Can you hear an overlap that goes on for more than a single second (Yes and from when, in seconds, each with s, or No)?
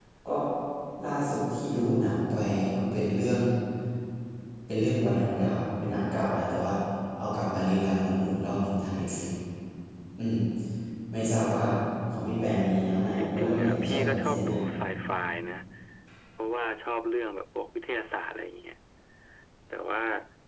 Yes, from 13.2 s